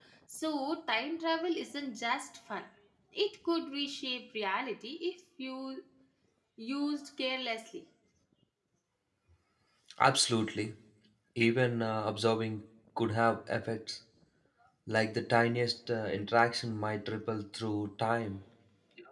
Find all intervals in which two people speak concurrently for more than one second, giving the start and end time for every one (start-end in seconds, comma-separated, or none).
none